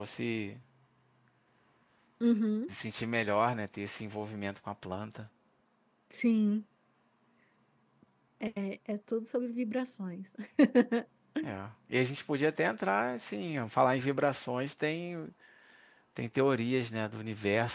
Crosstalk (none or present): none